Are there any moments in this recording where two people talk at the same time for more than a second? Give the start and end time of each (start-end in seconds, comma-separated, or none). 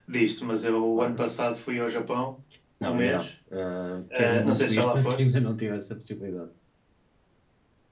4.1-5.3